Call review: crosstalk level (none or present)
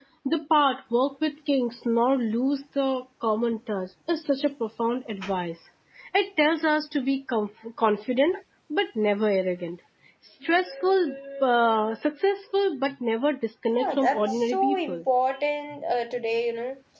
present